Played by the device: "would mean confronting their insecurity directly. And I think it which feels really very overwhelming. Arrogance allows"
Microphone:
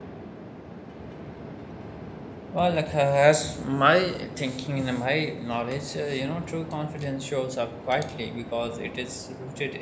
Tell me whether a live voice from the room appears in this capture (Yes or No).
Yes